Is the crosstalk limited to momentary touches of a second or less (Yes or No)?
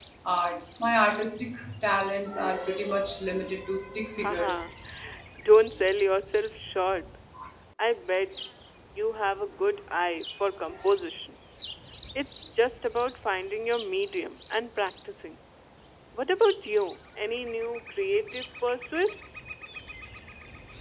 Yes